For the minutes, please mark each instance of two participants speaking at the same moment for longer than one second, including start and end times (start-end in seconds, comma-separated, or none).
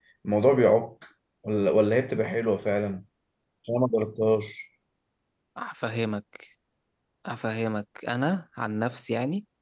none